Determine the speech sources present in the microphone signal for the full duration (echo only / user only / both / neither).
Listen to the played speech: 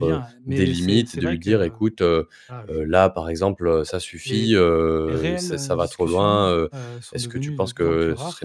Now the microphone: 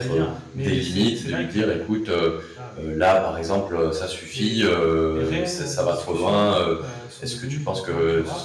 echo only